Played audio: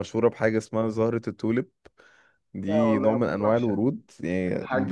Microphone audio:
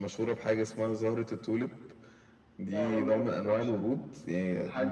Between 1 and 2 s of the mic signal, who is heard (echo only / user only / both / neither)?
echo only